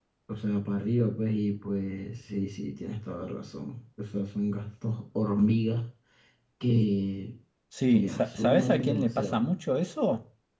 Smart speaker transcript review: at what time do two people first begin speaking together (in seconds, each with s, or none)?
7.9 s